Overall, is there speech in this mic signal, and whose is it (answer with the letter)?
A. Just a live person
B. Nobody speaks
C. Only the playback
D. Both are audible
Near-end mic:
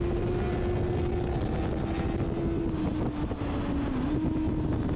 B